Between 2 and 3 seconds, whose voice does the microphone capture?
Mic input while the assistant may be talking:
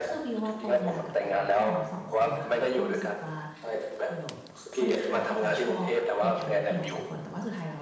both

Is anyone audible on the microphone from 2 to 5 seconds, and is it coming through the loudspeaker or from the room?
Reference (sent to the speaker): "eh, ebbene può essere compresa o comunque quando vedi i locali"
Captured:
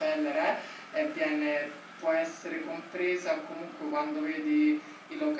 echo only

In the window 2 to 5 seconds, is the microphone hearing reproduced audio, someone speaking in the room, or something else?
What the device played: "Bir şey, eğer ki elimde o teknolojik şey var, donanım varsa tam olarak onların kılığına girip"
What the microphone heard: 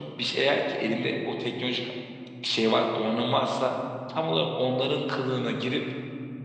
echo only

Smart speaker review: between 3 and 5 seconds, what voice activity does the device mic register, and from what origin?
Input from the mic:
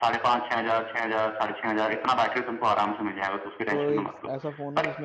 both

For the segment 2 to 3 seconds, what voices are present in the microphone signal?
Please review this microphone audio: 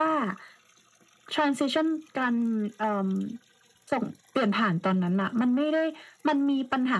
echo only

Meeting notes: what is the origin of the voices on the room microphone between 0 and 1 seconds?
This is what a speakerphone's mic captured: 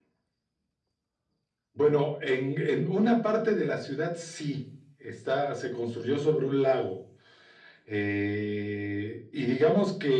neither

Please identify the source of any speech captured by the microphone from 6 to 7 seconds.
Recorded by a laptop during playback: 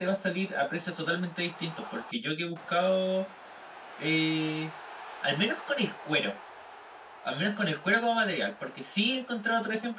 echo only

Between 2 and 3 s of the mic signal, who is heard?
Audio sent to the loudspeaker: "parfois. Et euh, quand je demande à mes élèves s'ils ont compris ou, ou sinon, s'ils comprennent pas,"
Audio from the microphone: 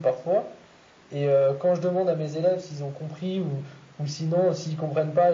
echo only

